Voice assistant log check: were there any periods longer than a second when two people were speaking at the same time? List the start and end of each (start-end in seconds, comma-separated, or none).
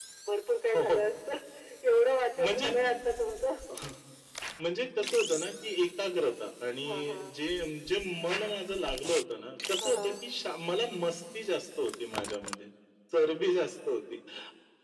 none